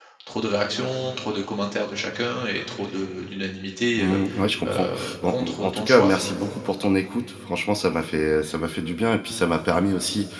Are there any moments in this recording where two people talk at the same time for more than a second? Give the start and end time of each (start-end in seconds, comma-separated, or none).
4.7-6.5